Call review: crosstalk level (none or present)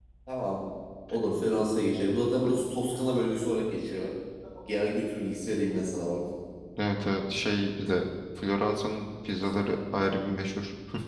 none